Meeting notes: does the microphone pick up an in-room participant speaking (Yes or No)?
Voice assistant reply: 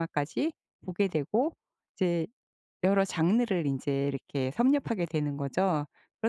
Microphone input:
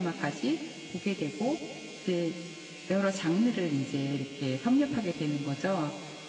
No